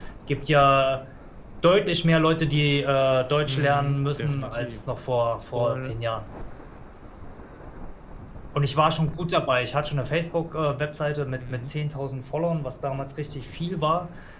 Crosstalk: present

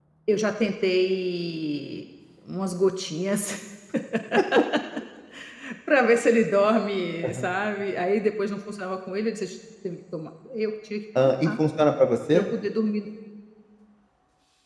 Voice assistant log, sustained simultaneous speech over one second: none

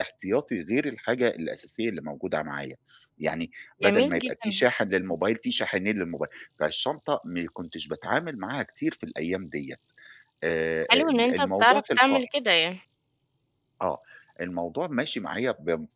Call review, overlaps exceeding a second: present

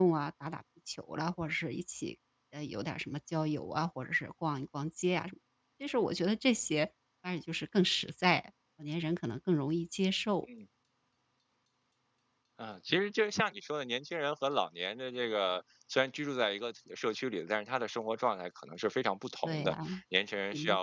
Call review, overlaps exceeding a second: none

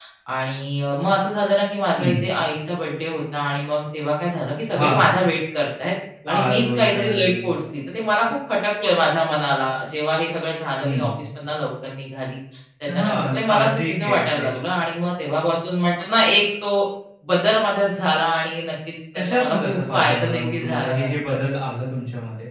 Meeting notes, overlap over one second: present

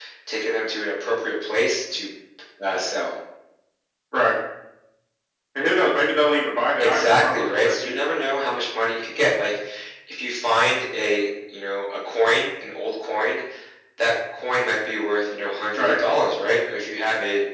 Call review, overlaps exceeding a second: present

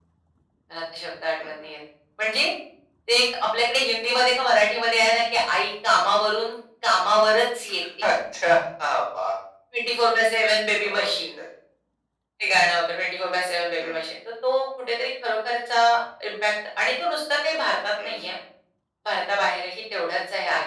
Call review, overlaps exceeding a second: none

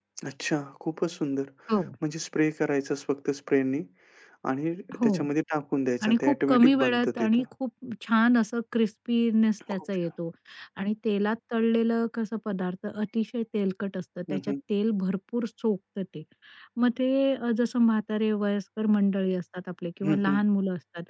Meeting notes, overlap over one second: present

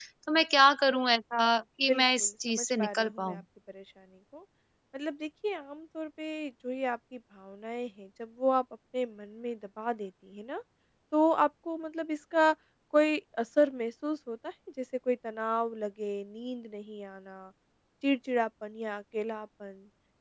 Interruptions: present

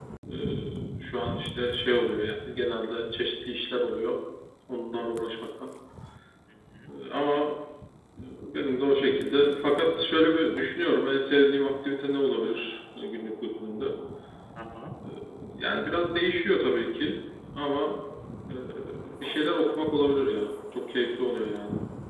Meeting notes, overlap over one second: none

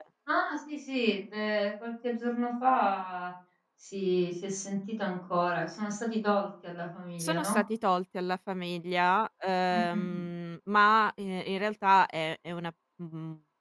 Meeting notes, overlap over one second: none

